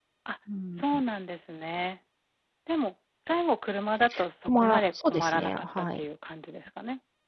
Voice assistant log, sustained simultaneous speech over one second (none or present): present